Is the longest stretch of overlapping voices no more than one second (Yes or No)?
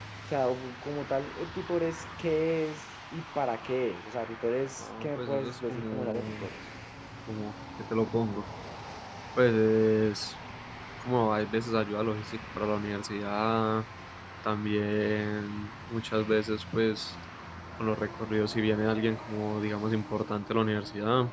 No